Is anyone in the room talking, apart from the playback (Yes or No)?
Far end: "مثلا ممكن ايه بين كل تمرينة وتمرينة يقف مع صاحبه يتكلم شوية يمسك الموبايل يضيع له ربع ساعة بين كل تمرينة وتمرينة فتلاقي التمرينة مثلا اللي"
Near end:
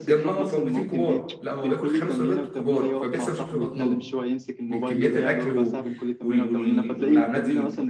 Yes